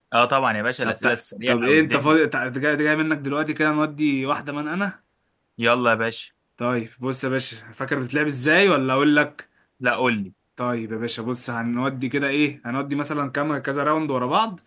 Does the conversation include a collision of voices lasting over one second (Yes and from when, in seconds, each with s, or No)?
Yes, from 0.8 s